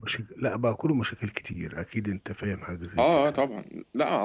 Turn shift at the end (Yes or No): Yes